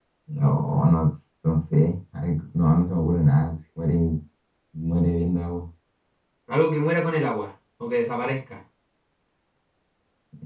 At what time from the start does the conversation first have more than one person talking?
none

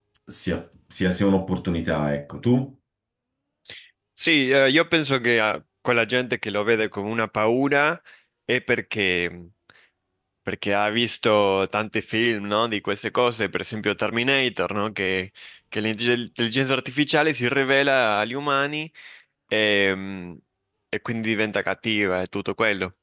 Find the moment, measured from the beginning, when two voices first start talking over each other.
none

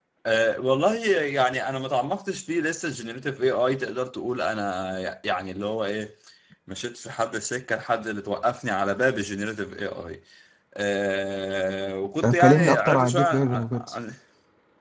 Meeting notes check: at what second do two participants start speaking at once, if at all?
12.2 s

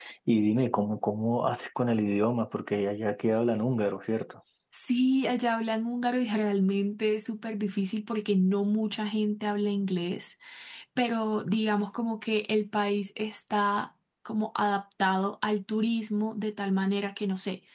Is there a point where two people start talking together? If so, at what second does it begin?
none

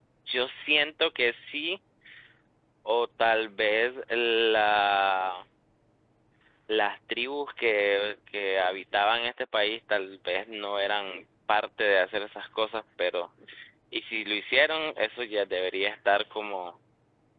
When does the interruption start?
none

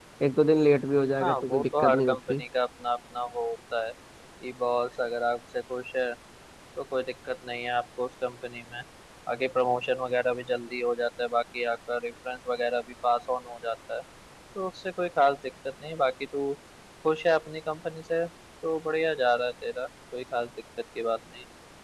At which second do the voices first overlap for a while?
1.2 s

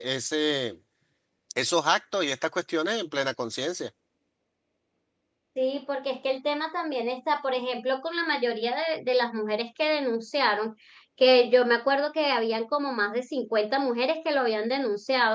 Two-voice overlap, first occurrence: none

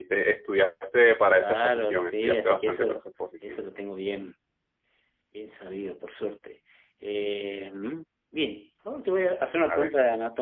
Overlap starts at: 1.3 s

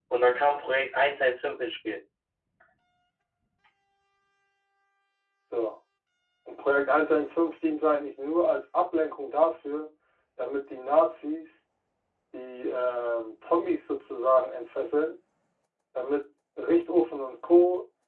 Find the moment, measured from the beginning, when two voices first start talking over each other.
none

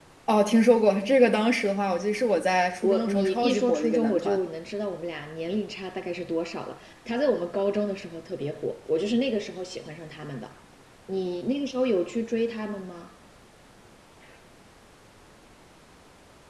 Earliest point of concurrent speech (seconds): 2.8 s

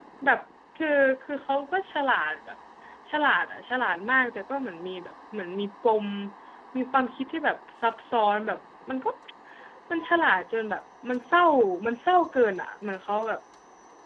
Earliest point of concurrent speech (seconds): none

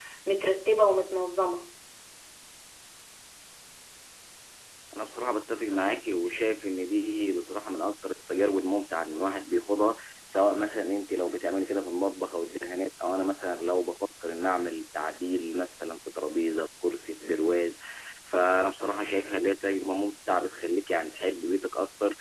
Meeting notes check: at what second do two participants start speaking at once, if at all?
none

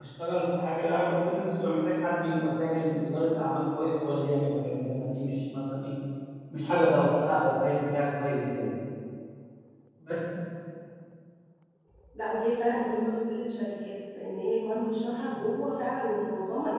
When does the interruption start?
none

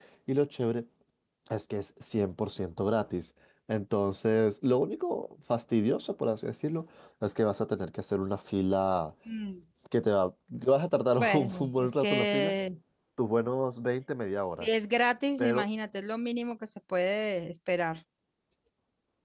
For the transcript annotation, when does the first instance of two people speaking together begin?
11.2 s

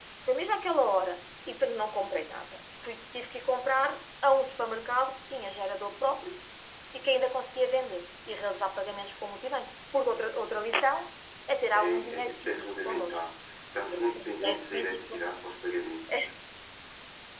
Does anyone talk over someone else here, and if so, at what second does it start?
11.7 s

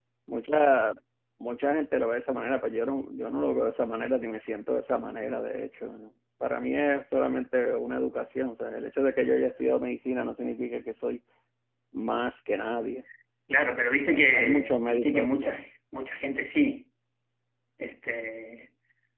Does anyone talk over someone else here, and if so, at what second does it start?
14.1 s

